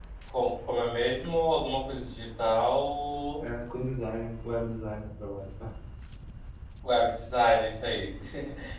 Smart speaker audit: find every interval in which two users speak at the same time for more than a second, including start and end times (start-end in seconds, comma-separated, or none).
none